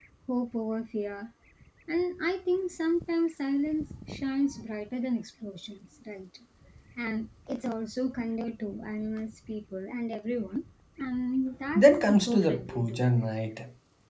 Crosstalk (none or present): present